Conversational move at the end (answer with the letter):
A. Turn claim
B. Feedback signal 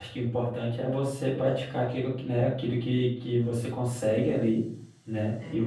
B